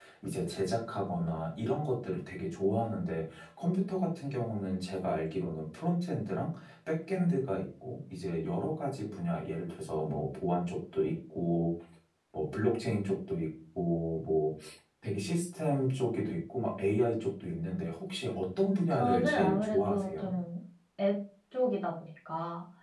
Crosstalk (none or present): present